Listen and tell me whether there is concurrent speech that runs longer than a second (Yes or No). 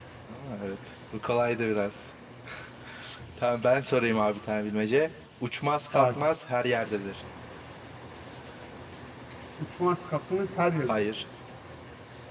No